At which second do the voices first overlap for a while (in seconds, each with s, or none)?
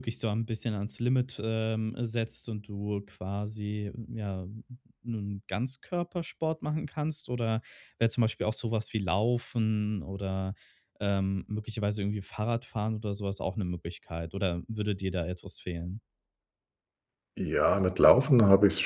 none